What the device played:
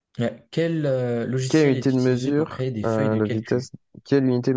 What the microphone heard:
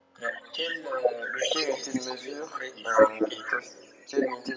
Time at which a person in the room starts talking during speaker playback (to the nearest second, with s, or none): none